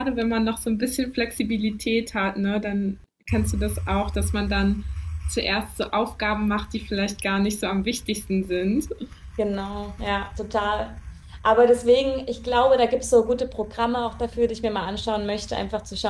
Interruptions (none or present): none